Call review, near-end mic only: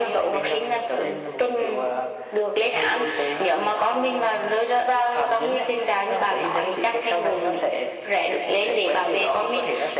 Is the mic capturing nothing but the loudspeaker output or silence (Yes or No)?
Yes